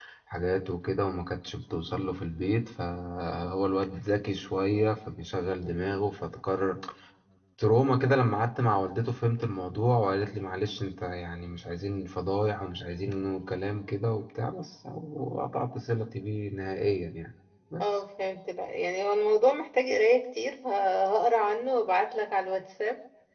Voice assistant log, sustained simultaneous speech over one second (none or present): none